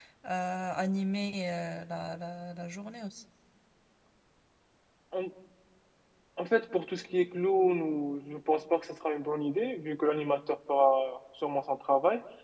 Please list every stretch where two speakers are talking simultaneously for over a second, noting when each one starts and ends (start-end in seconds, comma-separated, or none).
none